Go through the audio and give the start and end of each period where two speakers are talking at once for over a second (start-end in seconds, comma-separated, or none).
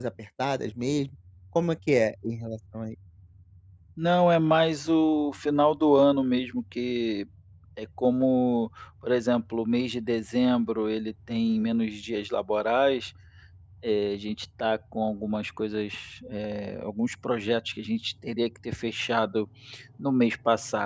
none